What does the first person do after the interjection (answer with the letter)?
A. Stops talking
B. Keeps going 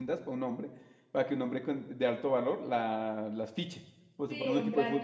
A